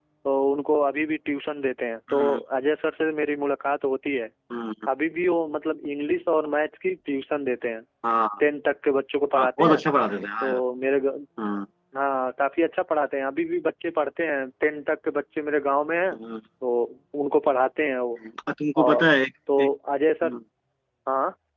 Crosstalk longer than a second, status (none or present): none